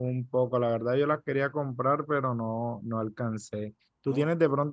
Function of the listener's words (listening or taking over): listening